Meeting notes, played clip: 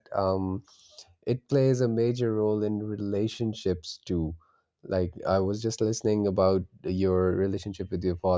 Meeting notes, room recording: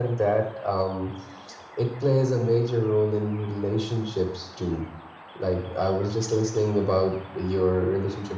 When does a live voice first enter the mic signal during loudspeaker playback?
none

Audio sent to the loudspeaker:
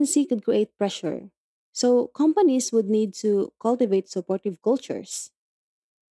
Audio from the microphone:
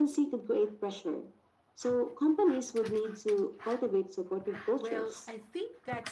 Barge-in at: 4.8 s

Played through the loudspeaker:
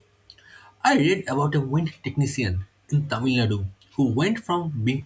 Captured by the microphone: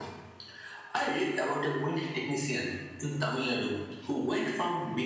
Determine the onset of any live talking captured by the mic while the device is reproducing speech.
none

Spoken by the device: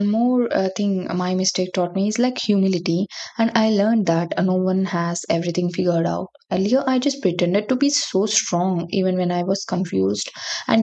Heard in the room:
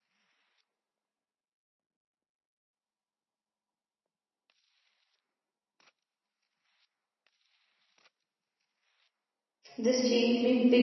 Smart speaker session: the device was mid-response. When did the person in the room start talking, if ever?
9.8 s

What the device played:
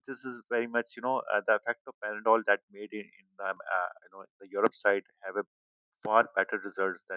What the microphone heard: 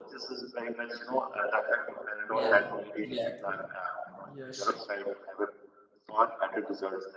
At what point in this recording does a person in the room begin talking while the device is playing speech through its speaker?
2.3 s

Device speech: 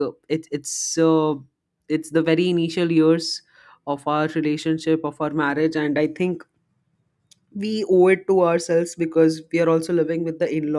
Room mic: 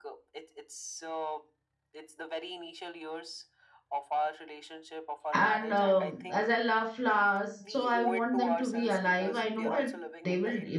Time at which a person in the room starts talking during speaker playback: 5.3 s

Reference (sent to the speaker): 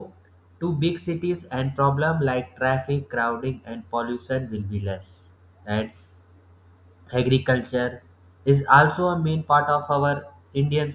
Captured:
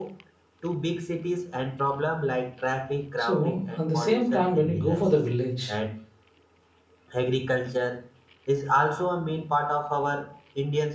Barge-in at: 3.1 s

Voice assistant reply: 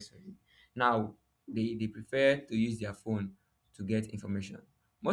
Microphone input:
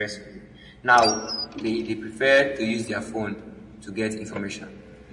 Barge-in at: none

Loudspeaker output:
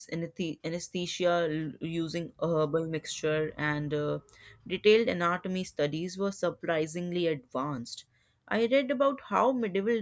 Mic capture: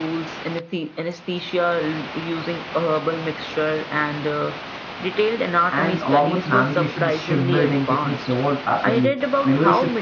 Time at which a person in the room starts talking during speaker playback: 5.7 s

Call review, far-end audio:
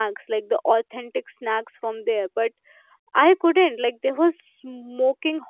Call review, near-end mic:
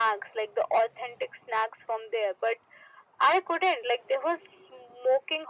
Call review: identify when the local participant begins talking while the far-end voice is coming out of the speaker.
none

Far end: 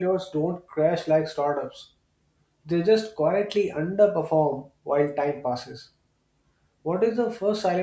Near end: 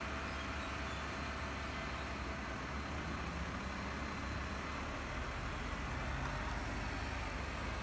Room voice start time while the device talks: none

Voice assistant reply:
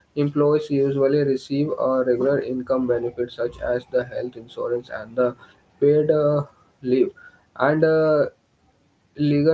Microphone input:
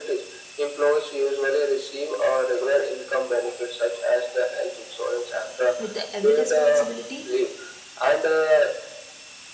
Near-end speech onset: 5.8 s

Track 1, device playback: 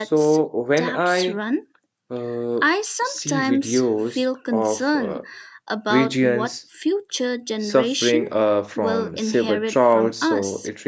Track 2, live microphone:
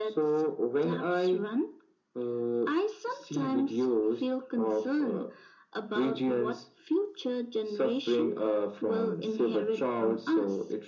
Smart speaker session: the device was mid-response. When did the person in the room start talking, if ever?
none

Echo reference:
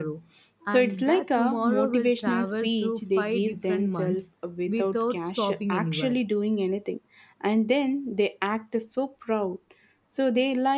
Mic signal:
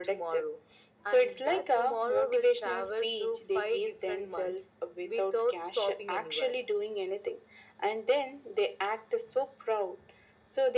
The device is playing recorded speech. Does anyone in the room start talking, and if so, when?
none

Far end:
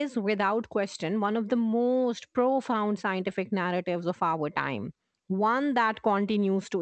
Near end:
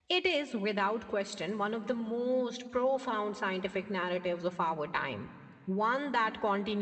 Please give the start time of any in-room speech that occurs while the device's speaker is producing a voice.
none

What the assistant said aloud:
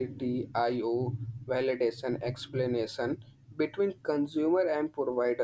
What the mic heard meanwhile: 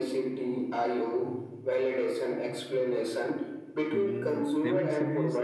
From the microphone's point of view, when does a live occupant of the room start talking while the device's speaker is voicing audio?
3.9 s

